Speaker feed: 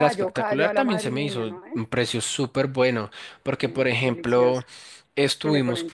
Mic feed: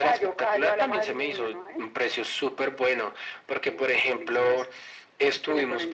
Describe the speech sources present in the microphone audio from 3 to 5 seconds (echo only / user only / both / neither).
echo only